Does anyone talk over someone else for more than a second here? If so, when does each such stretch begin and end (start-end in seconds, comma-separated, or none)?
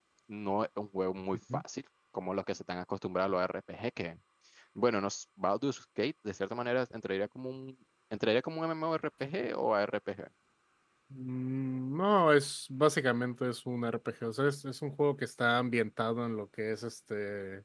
none